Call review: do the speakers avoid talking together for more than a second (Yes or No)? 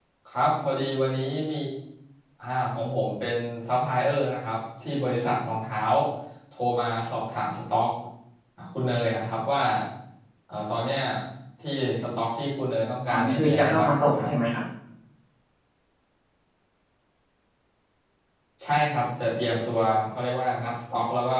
No